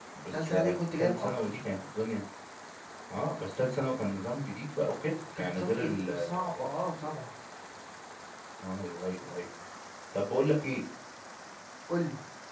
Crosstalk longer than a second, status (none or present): present